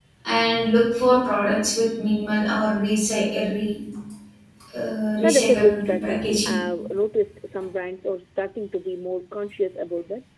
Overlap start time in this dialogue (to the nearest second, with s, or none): 5 s